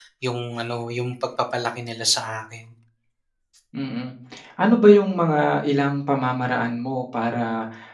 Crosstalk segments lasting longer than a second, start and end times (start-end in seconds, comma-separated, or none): none